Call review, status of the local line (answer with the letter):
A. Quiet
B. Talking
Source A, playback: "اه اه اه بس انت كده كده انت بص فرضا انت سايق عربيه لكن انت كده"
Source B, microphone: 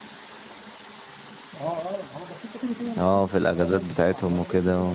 B